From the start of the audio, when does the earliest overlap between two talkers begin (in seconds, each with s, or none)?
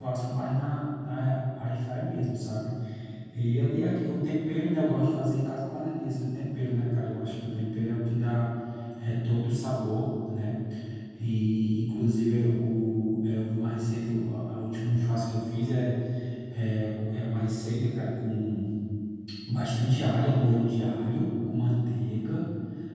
none